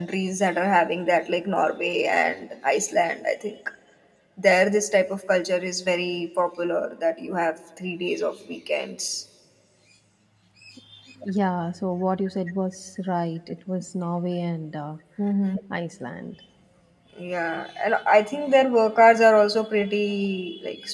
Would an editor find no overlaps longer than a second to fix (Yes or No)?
Yes